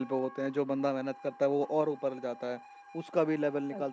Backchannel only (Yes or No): Yes